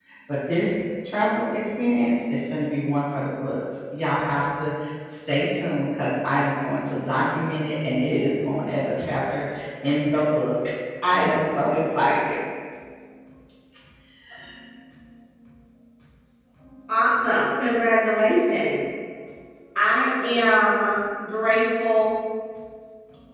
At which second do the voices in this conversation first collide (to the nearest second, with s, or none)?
none